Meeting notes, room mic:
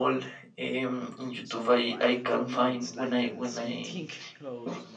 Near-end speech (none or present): present